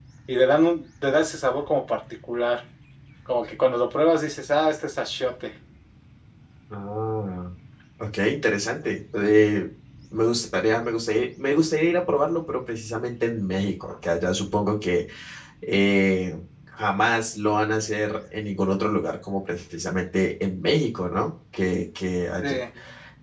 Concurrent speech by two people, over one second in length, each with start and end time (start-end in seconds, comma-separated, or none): none